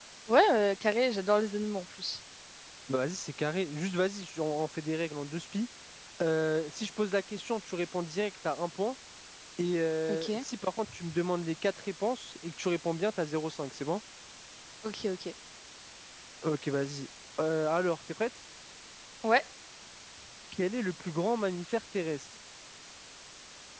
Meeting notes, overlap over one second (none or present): none